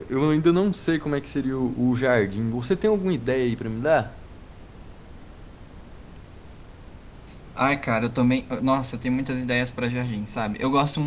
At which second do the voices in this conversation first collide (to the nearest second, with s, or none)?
none